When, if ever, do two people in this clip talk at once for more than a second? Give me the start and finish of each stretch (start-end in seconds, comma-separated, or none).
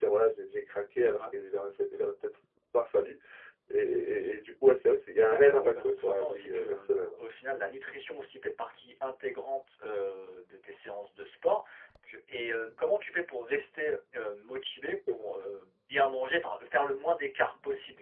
5.2-7.0